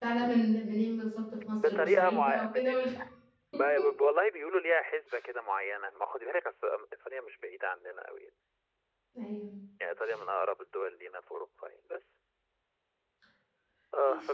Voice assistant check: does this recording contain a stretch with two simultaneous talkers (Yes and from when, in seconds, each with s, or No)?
Yes, from 1.6 s